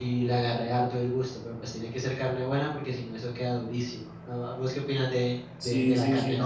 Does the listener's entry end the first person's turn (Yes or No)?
Yes